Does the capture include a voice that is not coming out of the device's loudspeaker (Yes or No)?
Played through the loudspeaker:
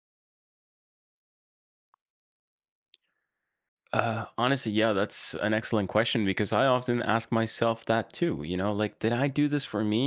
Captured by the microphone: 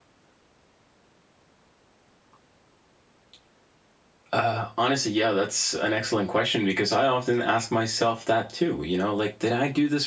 No